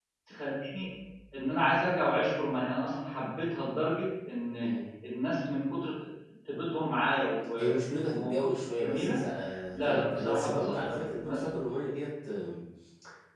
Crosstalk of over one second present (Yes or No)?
Yes